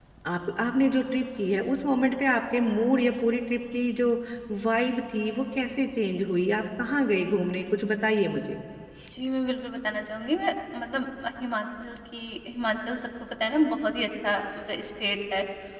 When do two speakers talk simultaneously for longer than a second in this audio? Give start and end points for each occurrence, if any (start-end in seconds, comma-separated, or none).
none